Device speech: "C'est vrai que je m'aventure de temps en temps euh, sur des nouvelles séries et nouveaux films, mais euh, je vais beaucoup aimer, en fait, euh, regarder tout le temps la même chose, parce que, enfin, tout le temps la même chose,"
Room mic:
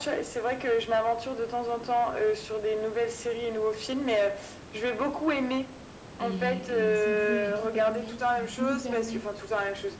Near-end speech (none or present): present